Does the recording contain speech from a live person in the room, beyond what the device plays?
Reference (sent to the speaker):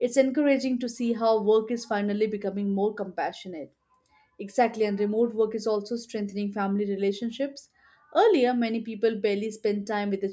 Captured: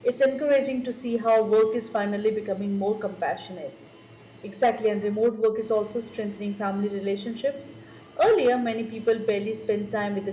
No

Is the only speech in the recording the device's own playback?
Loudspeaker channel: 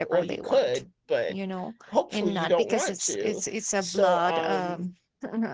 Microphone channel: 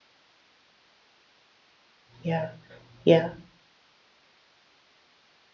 No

